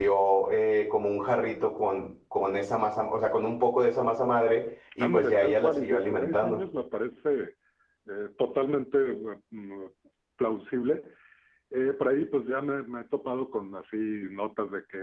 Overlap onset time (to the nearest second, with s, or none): 5 s